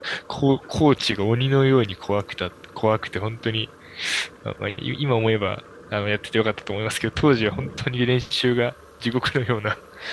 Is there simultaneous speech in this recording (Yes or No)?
No